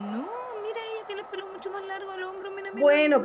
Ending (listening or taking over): taking over